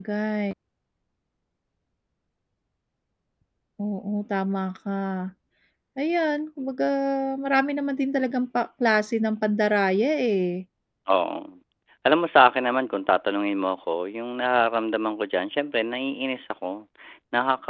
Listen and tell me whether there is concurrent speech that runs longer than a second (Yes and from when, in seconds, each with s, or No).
No